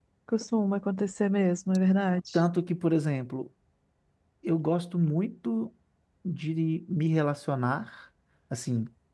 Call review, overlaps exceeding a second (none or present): none